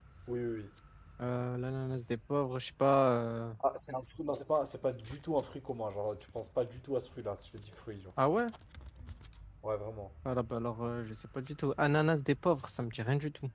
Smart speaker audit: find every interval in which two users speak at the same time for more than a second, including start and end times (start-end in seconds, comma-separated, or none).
none